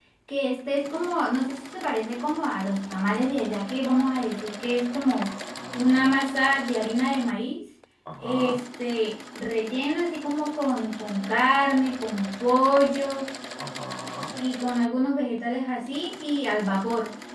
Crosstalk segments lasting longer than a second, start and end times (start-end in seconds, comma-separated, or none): none